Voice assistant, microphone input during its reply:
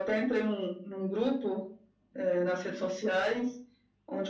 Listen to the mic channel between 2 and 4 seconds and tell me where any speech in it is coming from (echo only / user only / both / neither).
echo only